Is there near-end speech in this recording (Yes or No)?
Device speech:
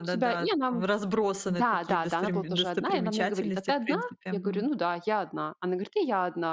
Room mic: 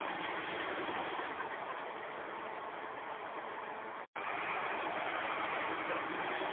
No